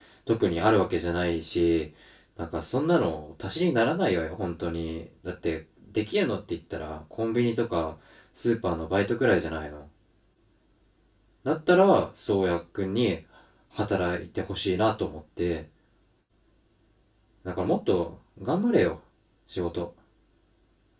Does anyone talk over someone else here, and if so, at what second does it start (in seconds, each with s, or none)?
none